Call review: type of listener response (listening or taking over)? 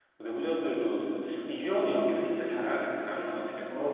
taking over